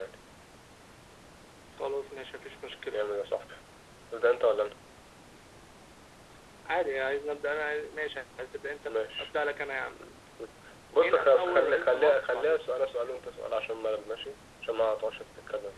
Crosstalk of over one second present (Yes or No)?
Yes